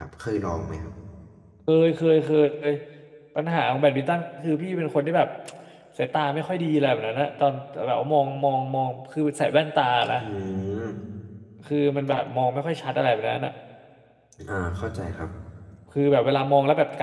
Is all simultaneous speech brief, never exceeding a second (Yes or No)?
Yes